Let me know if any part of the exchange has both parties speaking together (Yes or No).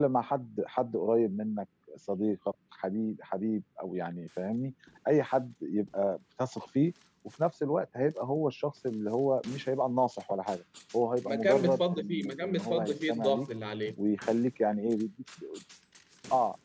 Yes